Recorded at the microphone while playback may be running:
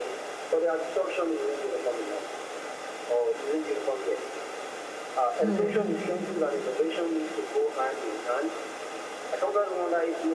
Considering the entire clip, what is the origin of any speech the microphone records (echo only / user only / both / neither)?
both